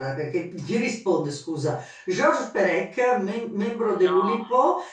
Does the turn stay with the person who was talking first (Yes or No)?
Yes